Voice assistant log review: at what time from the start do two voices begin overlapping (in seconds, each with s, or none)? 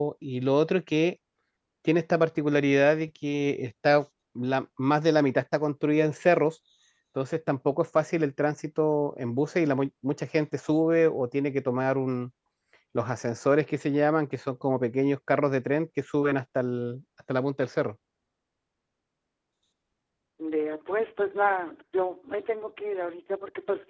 none